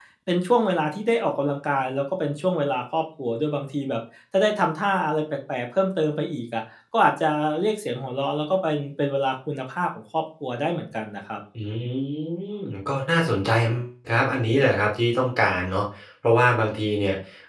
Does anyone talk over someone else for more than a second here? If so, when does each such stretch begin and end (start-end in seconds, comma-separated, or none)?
none